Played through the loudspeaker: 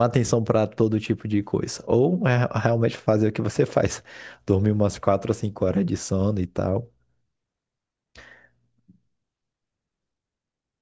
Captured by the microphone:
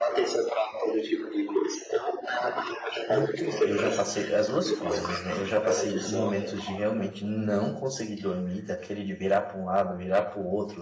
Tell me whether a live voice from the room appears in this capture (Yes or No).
Yes